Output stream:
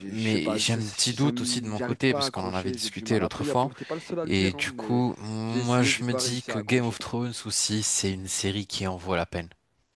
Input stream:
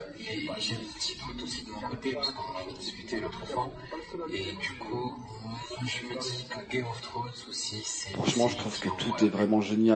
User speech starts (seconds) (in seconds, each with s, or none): 8.1 s